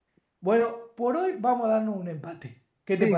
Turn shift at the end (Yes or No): Yes